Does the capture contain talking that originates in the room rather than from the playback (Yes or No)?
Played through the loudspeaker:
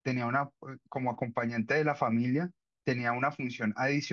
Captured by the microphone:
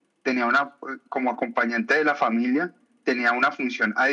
No